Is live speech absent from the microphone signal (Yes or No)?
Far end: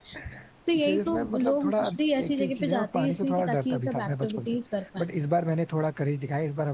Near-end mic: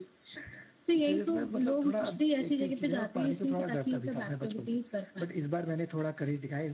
Yes